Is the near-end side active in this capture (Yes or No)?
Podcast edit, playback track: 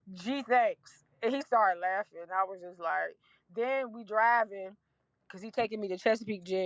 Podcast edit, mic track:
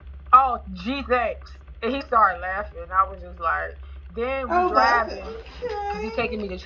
Yes